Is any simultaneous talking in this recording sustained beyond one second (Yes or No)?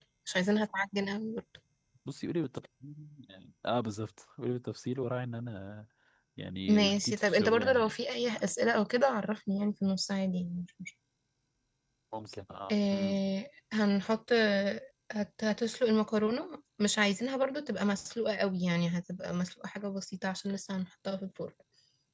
Yes